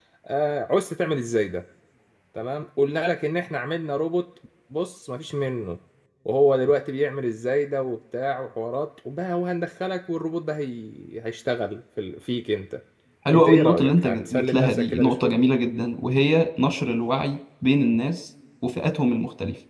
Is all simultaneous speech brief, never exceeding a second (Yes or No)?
No